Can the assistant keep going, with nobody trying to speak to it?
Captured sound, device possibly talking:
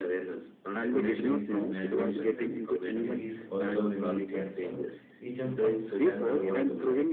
No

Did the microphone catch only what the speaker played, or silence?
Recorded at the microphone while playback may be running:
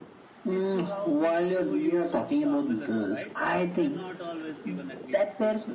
No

